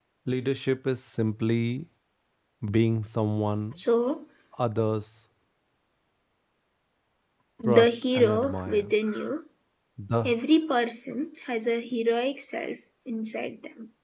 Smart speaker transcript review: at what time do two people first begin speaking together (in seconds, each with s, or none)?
7.7 s